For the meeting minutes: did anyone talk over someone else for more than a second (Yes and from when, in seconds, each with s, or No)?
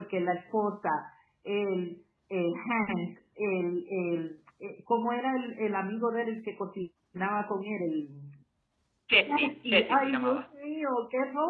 Yes, from 9.3 s